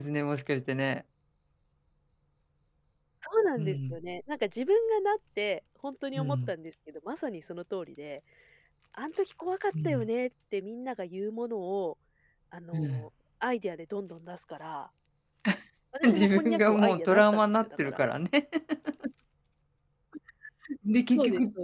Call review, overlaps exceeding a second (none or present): present